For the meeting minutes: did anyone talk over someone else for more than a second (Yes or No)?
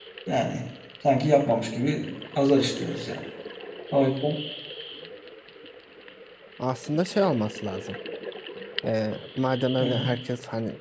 No